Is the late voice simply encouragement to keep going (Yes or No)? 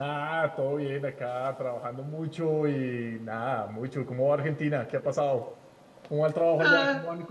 No